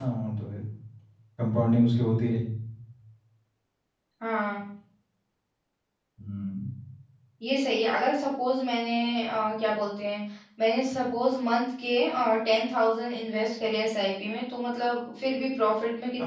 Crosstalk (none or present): none